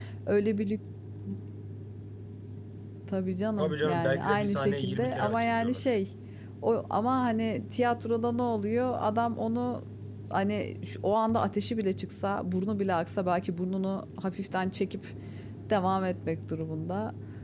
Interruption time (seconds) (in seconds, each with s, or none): 3.6 s